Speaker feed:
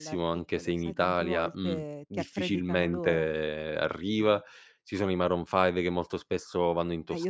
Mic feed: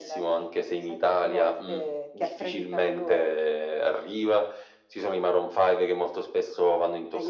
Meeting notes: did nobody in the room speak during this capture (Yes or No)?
Yes